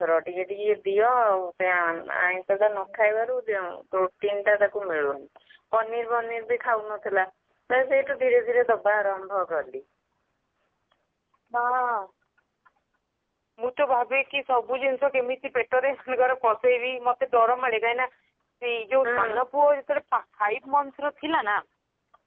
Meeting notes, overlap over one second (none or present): none